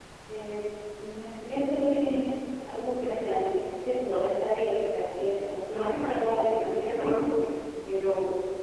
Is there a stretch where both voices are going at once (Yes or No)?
Yes